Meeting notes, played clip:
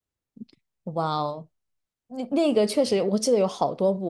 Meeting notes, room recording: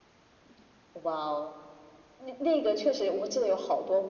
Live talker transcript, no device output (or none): none